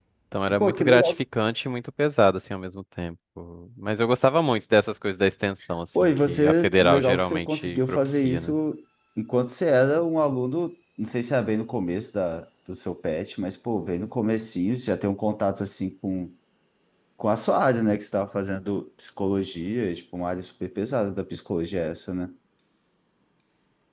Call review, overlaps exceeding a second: present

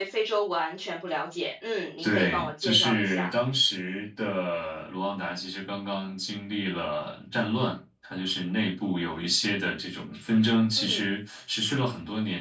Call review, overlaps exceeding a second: present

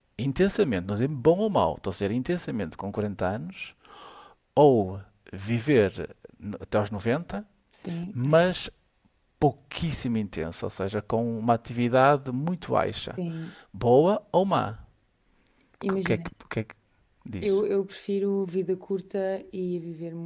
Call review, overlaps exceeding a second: none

